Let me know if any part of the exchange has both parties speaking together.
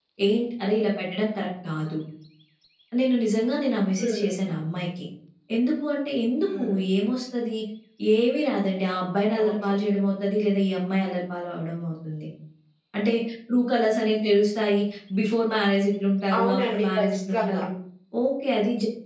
Yes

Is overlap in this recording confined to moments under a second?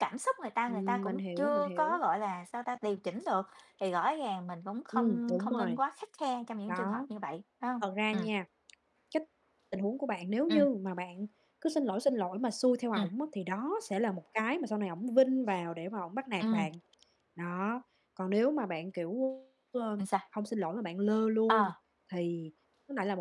No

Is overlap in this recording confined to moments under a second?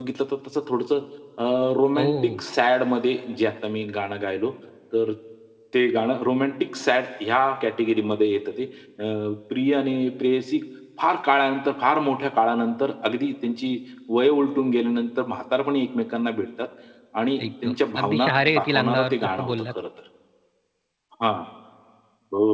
No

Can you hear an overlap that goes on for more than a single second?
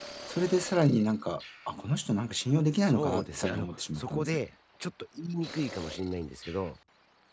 Yes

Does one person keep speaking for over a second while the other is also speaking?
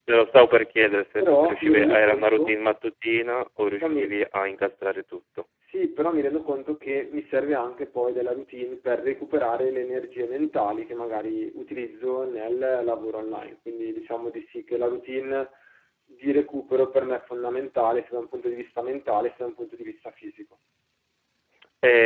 Yes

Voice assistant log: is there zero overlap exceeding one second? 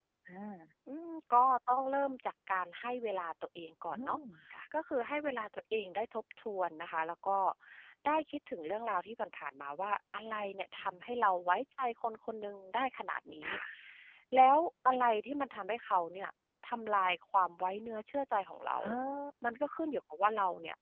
Yes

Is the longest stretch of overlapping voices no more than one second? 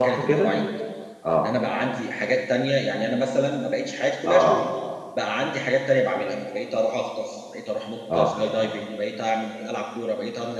Yes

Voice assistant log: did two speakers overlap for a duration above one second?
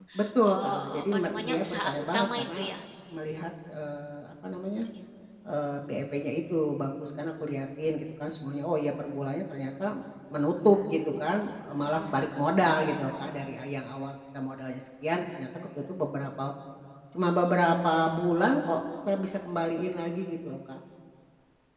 Yes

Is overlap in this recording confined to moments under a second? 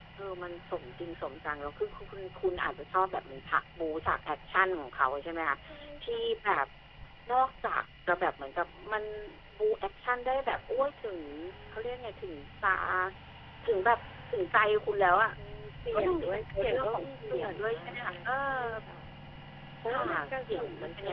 No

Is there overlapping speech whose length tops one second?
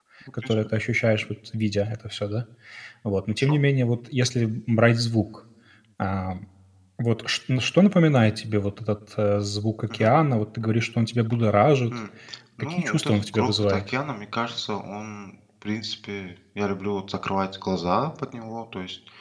Yes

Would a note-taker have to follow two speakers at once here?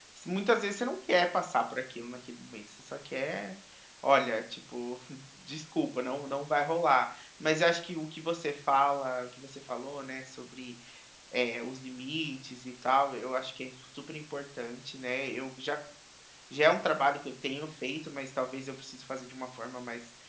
No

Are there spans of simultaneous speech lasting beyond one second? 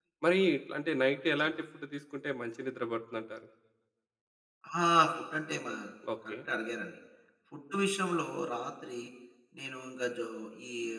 No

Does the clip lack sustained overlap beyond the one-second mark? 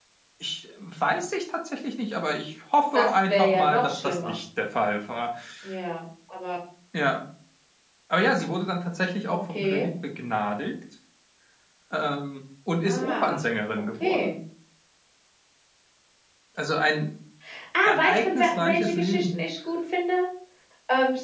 No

